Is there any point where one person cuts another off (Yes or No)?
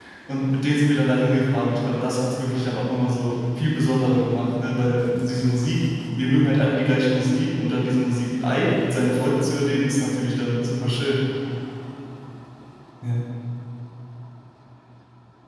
No